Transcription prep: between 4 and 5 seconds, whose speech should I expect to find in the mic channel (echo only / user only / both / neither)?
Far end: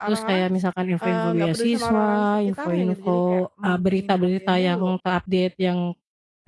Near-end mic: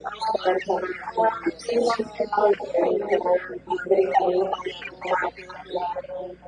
echo only